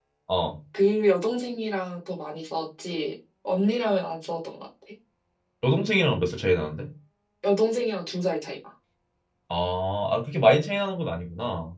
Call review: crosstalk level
none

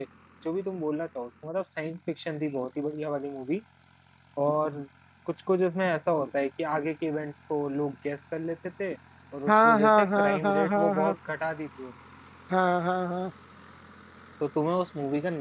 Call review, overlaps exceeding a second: present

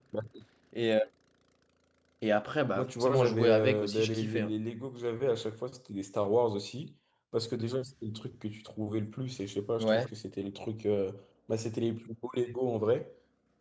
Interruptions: present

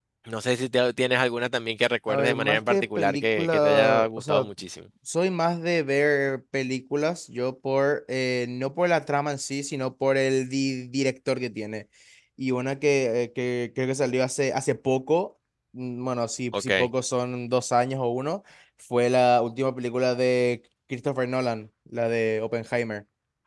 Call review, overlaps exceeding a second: present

